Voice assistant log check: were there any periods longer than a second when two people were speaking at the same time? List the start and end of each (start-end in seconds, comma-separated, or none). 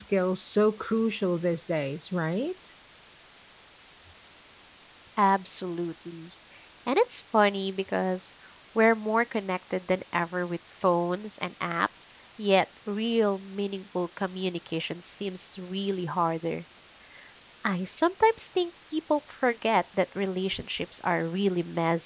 none